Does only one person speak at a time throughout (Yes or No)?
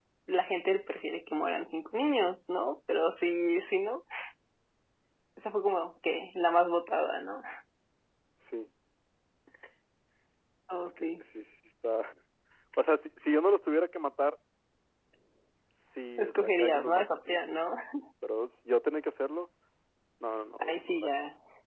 No